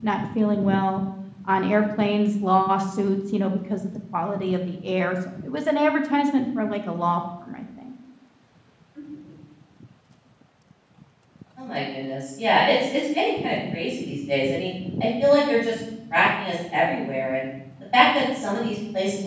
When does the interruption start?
none

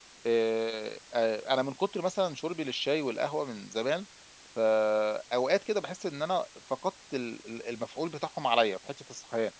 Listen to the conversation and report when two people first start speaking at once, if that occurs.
none

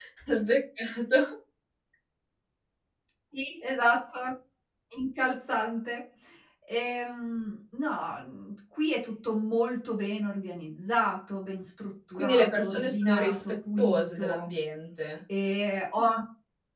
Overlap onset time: 12.1 s

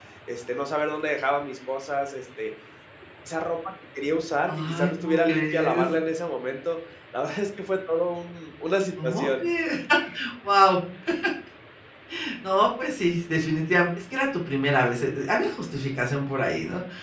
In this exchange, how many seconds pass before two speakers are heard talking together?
4.5 s

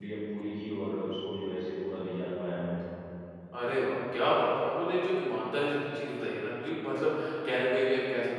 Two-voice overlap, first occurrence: none

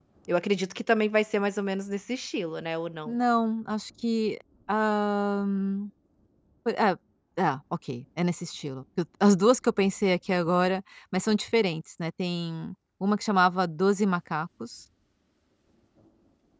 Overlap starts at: none

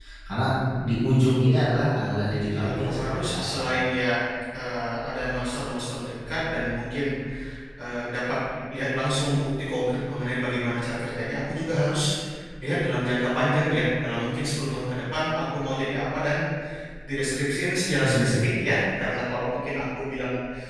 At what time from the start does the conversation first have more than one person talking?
1.9 s

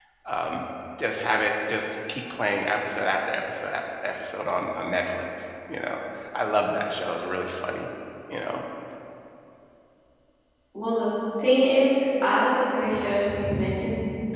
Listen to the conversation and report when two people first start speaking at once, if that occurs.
none

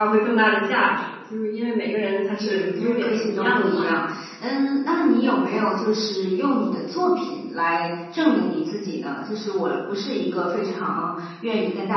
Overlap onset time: 2.4 s

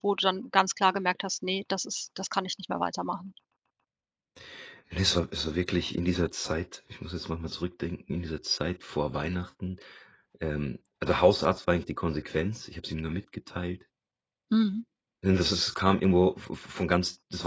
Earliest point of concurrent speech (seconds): none

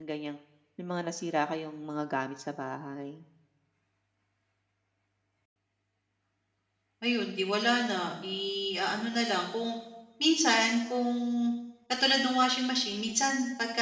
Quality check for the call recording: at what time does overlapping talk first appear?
none

